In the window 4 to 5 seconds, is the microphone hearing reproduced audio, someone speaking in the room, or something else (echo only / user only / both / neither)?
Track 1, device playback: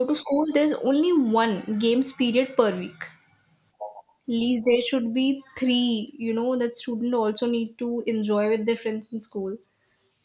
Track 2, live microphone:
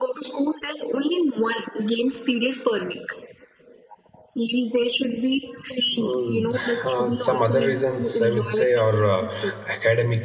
echo only